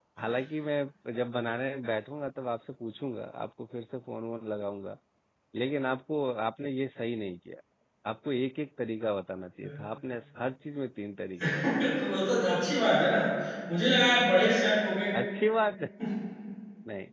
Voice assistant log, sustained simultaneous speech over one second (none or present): none